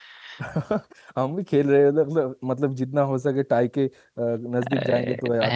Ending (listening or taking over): taking over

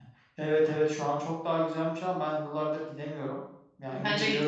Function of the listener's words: listening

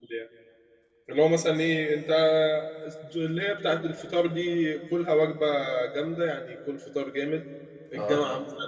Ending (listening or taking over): listening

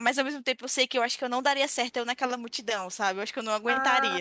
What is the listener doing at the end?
taking over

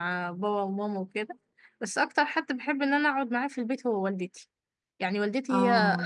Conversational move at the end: listening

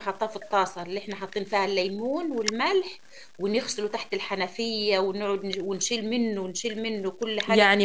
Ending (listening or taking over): taking over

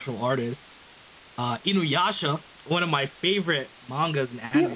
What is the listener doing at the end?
taking over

